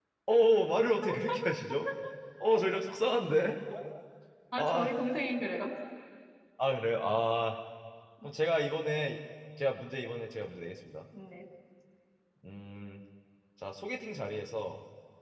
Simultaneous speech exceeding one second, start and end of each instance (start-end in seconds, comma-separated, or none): none